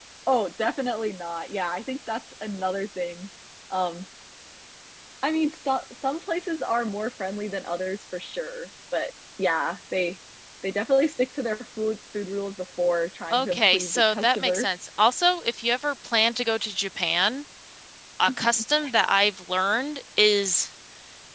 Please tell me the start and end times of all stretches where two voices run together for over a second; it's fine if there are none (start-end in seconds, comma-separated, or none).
13.3-14.7